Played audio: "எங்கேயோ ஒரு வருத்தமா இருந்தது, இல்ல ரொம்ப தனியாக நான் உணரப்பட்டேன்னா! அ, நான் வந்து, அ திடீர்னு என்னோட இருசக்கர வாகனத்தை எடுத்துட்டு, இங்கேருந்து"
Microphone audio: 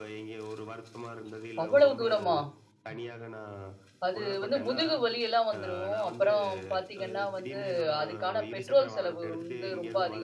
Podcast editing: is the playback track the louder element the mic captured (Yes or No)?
No